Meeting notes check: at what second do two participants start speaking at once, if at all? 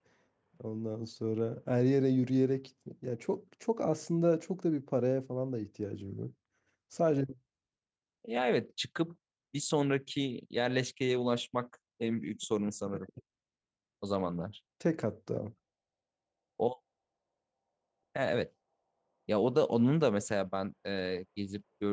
none

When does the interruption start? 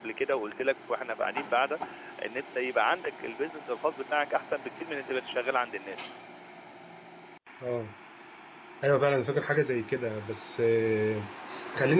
none

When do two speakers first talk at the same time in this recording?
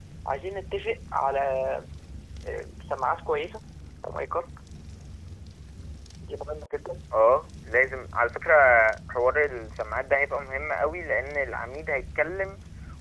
none

